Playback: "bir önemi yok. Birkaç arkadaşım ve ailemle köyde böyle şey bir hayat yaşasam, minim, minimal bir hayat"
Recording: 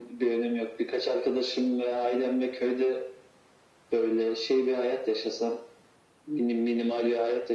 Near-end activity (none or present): none